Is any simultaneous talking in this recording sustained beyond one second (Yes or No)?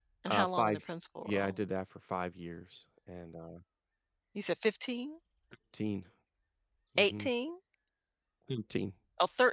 No